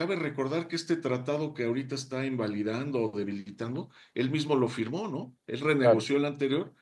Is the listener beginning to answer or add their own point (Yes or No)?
No